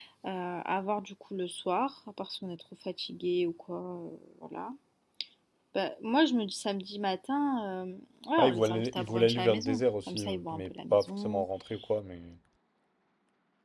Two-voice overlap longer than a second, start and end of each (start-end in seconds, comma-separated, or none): 8.4-11.4